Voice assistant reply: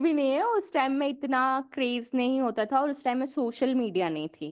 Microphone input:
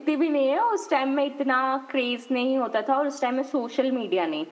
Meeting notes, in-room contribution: none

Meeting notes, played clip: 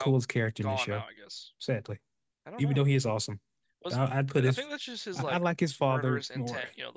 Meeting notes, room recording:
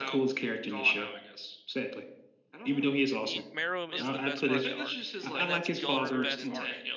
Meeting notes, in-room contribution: present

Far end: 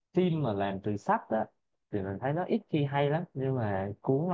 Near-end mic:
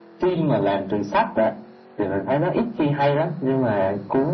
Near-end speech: none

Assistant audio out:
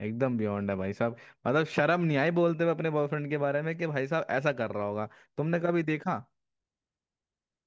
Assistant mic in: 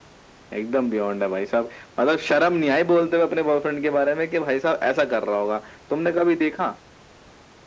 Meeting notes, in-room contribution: none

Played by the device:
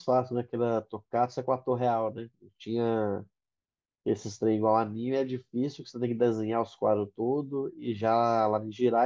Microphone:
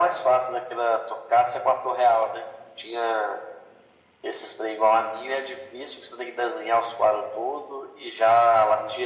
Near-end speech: none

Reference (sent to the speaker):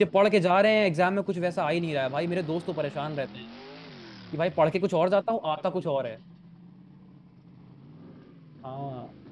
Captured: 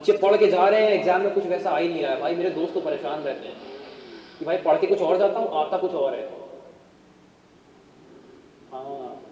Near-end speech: none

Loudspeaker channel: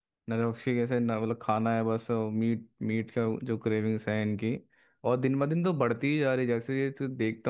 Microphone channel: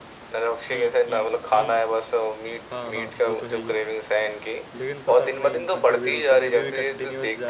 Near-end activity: present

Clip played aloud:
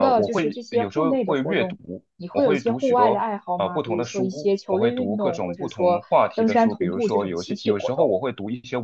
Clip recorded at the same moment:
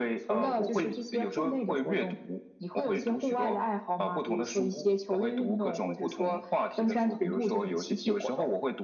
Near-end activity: none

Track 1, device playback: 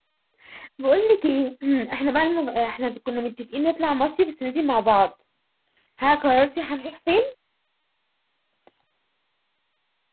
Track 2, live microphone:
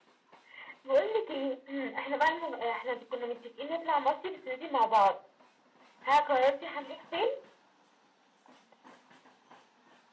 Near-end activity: none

